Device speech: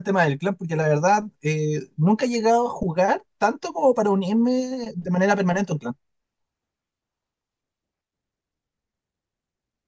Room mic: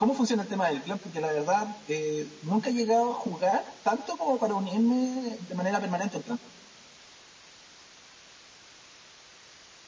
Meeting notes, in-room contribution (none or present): none